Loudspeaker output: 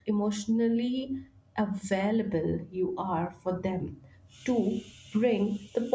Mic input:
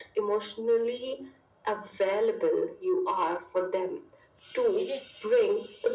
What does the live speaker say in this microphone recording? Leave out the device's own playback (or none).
Get it?